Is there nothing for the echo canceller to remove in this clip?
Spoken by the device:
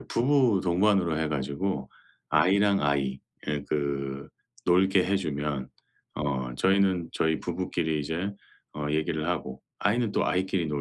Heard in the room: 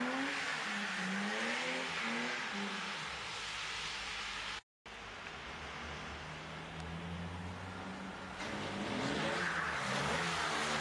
Yes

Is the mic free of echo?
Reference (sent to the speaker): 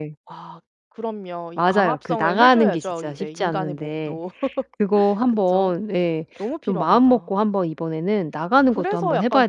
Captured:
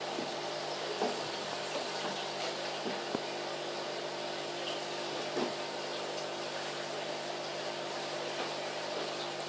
Yes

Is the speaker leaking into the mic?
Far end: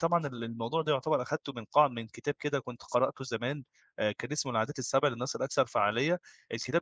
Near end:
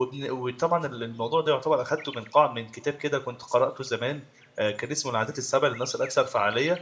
Yes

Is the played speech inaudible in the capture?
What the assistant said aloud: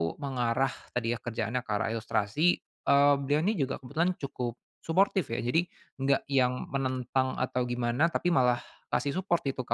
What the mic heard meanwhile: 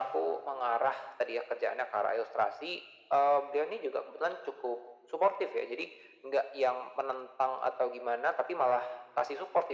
No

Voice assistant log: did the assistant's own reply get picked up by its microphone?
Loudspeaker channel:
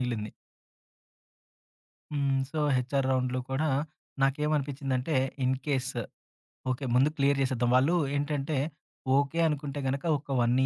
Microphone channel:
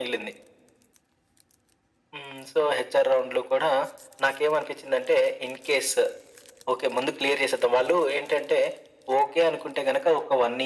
Yes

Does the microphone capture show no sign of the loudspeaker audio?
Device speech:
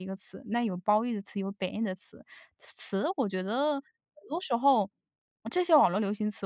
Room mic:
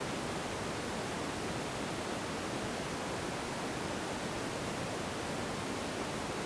Yes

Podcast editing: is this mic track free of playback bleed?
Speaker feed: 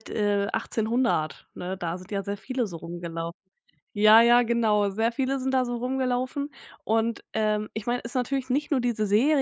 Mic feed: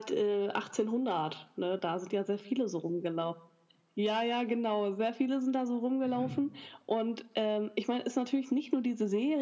No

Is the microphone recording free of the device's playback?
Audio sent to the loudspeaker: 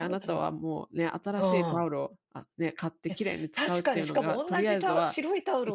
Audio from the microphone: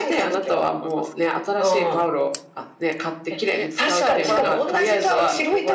No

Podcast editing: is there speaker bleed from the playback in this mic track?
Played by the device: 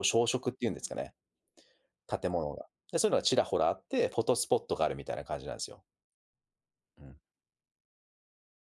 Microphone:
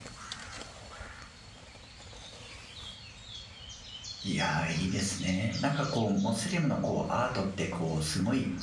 No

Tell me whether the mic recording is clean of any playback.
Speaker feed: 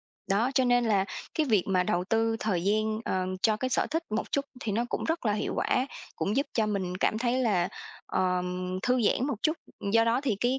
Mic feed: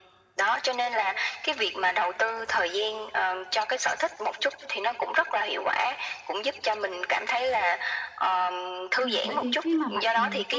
No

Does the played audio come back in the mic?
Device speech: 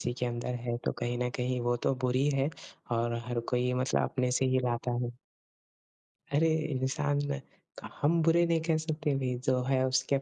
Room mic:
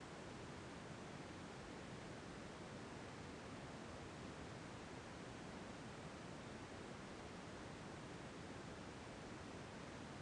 No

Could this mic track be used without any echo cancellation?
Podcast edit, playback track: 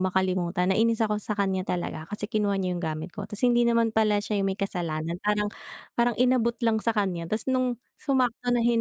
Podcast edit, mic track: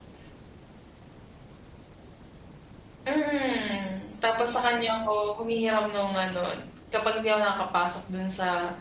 Yes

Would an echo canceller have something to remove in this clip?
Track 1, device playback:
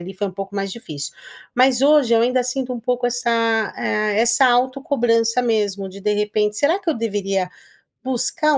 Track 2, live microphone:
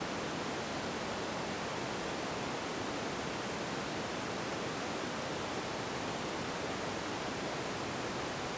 No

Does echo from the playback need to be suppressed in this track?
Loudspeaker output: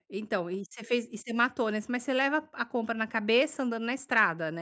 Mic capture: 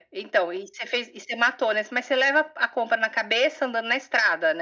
Yes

